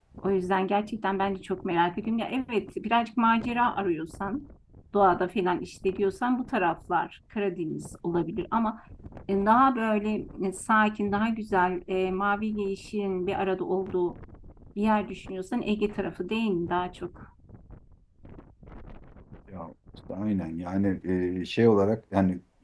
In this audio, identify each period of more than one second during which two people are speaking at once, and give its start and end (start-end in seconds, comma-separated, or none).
none